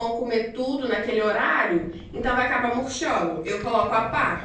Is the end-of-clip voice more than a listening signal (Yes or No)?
Yes